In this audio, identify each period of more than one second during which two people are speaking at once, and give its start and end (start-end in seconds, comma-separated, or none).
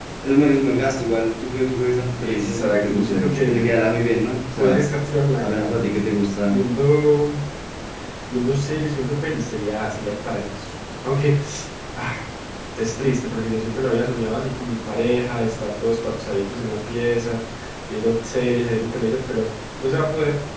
2.2-3.7